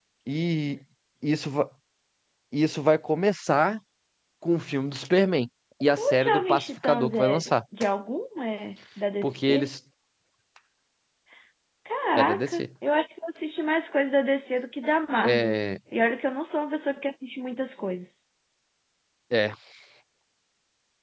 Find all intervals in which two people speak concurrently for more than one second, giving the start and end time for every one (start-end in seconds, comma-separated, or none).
6.0-7.5